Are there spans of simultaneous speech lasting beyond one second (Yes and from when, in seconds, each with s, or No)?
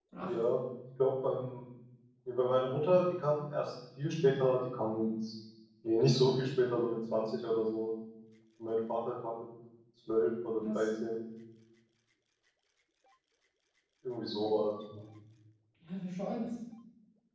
No